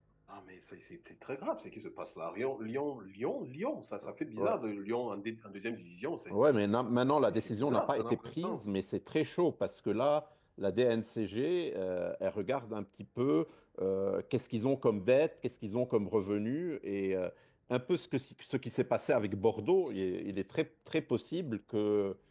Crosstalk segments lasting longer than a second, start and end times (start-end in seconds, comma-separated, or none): 7.2-8.7